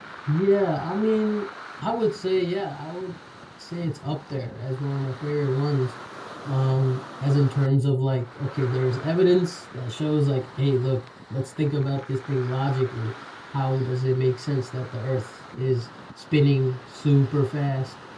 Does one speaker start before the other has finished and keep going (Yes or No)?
No